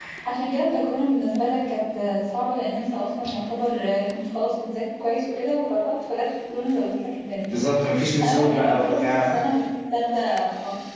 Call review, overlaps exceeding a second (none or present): present